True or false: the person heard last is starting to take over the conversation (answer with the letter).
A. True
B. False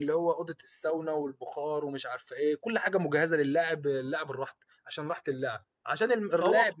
B